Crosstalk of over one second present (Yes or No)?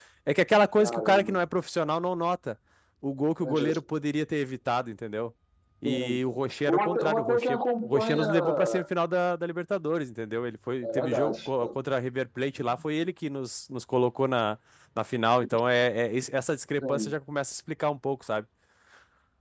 Yes